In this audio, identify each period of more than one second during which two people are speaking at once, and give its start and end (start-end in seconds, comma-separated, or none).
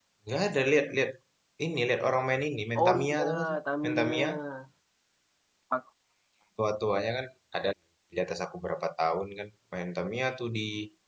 2.8-4.1